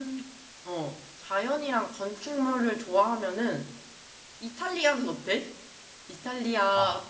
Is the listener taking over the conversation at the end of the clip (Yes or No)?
No